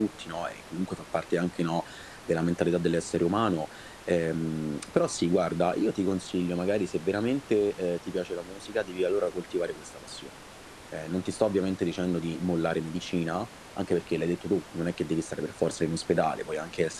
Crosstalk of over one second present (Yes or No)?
No